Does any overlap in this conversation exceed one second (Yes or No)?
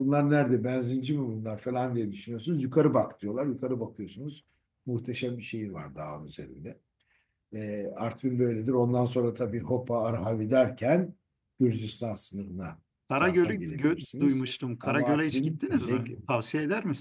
Yes